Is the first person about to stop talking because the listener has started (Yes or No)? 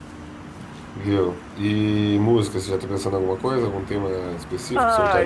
Yes